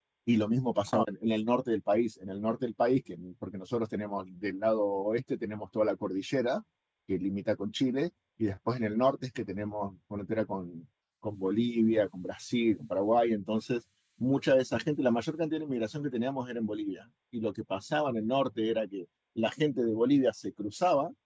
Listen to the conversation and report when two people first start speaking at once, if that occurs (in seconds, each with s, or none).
none